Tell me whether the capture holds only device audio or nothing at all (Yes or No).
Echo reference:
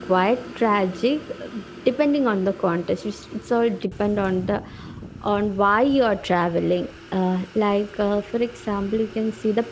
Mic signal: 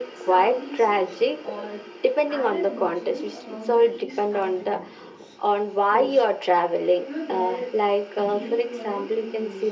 No